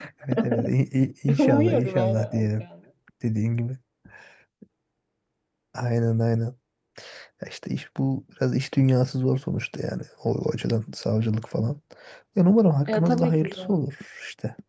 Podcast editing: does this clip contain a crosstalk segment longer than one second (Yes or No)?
Yes